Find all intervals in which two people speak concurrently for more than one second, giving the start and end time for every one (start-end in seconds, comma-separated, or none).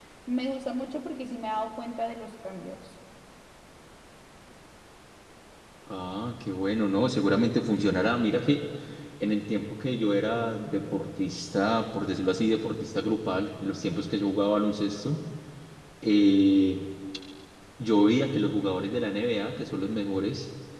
none